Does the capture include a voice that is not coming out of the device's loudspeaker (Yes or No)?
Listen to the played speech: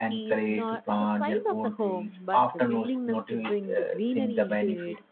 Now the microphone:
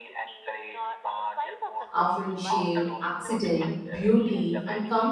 Yes